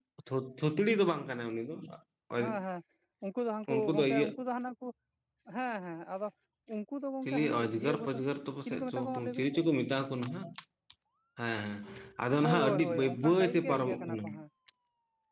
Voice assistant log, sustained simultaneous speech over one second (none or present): present